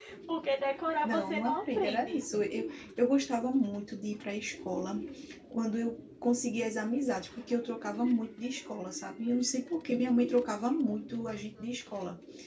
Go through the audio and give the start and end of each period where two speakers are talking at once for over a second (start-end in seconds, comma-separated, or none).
1.0-2.2